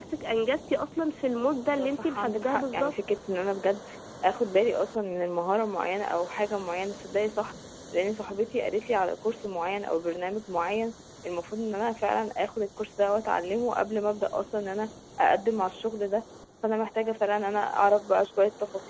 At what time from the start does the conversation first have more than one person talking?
1.7 s

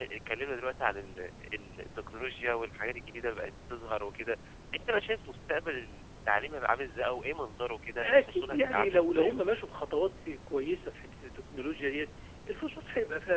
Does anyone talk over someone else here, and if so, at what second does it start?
8.0 s

